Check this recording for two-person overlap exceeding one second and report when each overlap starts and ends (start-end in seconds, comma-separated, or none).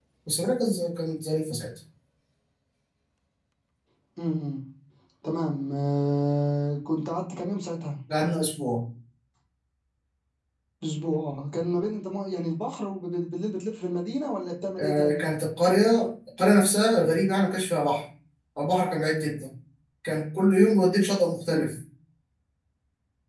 none